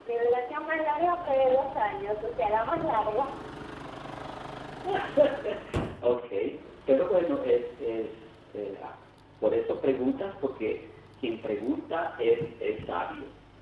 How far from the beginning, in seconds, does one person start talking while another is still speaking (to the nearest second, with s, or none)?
none